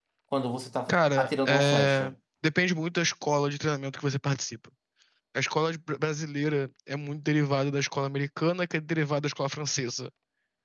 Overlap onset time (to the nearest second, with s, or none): 1 s